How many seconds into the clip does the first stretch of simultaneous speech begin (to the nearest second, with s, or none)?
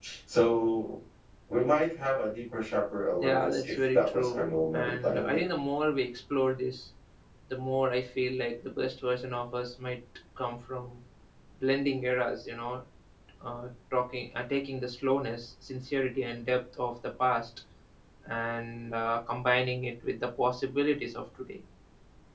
3 s